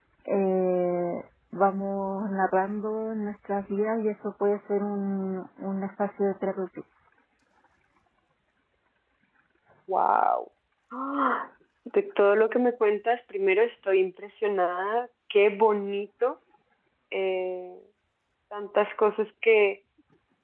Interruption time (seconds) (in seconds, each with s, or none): none